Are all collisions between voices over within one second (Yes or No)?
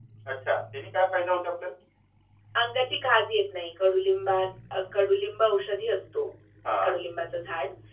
Yes